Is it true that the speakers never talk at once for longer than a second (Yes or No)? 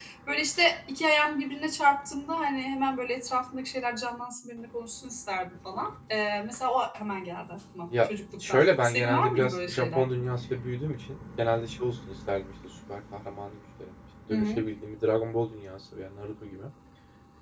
No